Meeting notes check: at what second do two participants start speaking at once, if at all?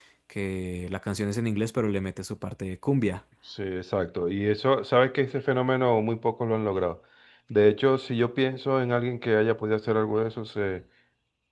none

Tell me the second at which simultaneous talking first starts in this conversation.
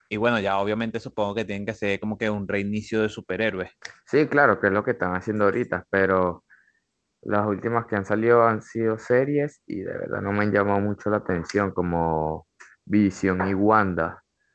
none

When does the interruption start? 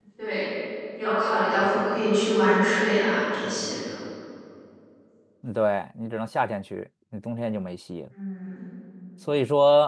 none

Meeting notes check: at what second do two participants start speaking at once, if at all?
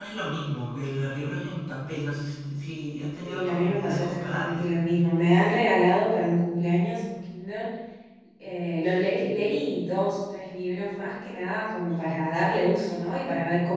3.2 s

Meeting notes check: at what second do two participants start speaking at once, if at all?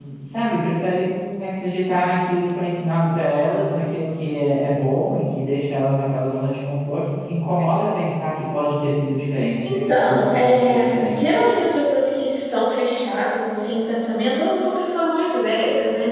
9.6 s

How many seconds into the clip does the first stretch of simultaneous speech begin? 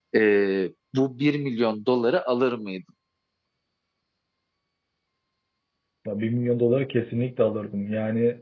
none

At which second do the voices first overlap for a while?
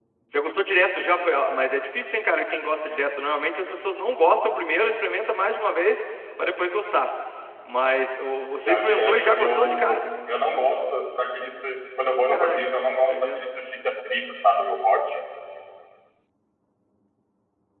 8.6 s

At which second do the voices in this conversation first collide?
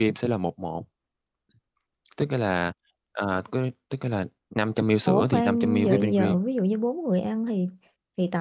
5.1 s

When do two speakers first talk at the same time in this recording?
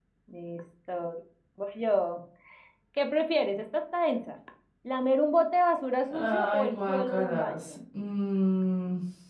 6.1 s

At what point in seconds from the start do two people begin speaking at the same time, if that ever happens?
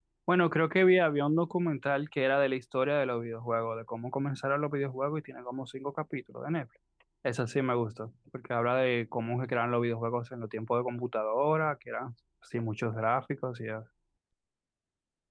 none

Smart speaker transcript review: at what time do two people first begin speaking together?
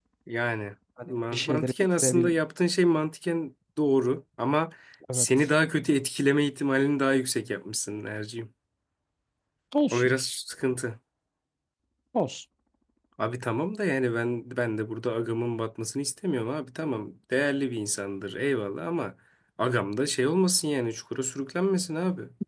1.1 s

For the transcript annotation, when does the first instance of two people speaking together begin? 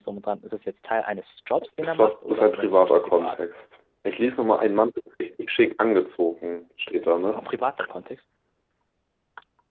1.8 s

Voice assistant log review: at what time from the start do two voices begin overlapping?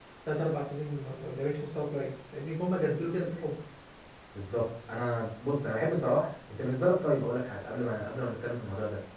none

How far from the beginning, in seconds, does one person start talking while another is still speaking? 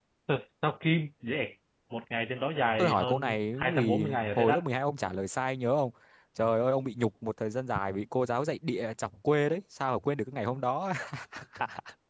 2.8 s

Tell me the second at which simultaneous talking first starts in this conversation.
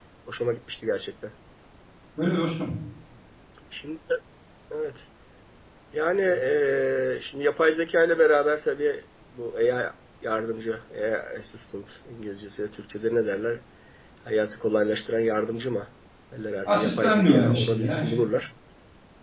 16.6 s

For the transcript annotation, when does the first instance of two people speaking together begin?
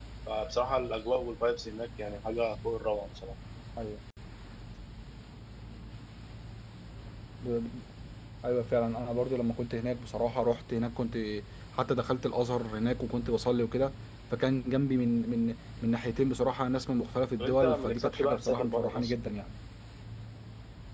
17.4 s

